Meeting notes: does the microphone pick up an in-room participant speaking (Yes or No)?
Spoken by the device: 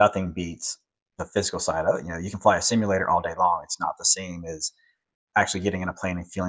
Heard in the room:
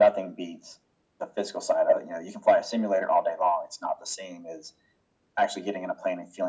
No